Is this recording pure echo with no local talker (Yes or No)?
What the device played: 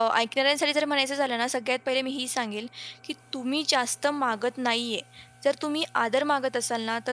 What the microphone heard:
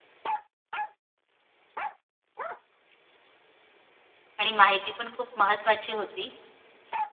No